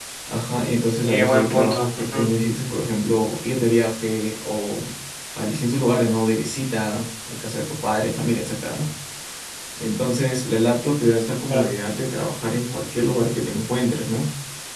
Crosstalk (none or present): present